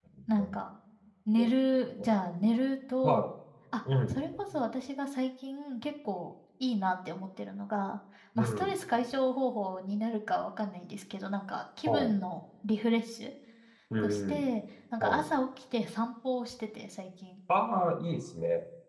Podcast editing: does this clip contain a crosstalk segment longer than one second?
No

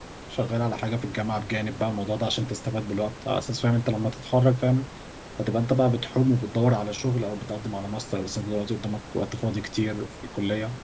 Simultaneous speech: No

